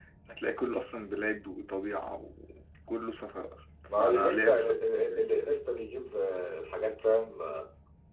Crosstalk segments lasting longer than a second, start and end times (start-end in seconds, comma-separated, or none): 4.0-5.3